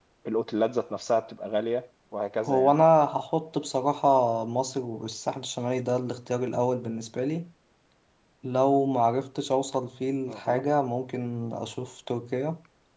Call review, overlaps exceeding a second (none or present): none